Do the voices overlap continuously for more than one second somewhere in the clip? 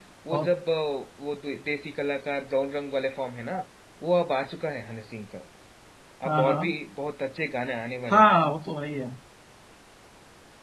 No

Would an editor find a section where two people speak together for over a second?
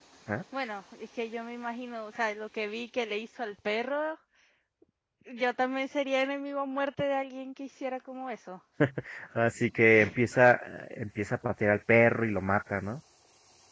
No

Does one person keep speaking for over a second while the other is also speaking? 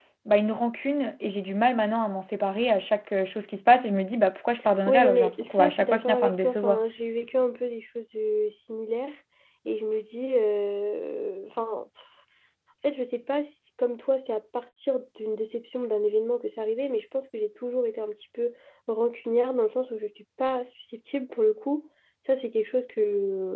Yes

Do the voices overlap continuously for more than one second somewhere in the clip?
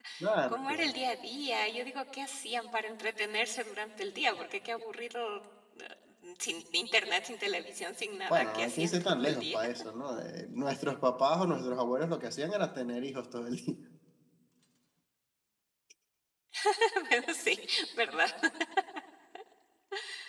Yes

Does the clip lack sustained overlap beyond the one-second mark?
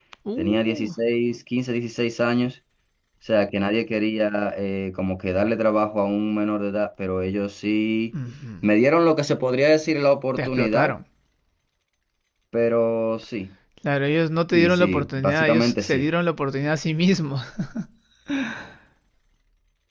No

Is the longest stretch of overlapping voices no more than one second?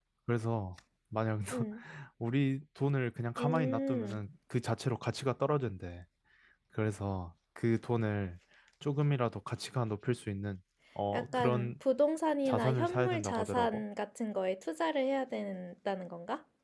No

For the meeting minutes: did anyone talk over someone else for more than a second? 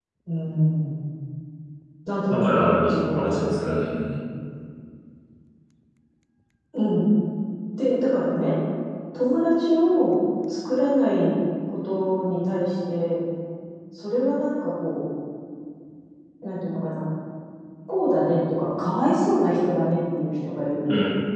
Yes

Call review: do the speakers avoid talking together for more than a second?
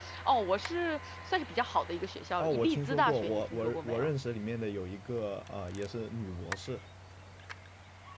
No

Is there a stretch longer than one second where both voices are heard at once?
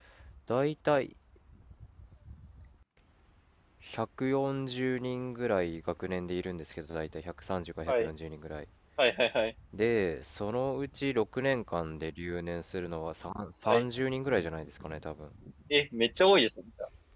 No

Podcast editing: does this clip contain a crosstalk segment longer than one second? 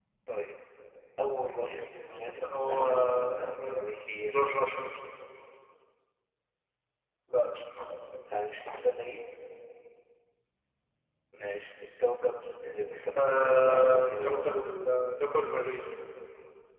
Yes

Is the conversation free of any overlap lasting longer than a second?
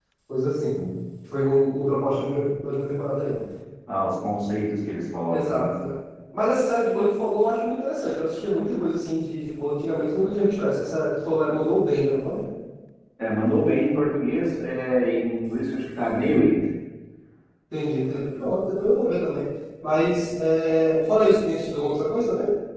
Yes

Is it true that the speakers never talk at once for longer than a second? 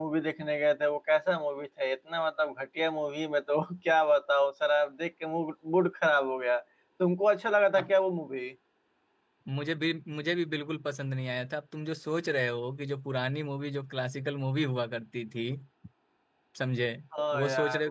Yes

